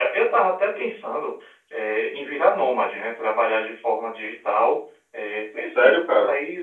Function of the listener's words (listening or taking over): listening